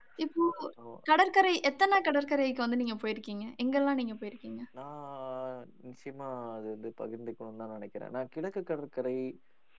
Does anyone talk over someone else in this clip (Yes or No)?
No